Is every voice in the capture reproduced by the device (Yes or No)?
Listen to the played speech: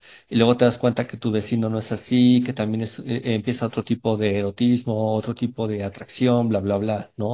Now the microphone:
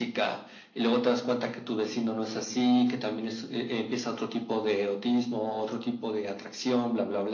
Yes